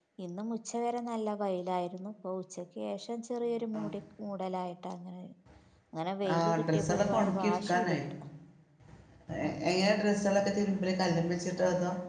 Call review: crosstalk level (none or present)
present